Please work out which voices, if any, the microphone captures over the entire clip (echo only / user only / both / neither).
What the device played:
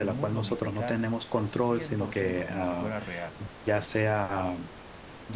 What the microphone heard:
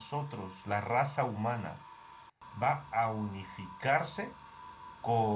user only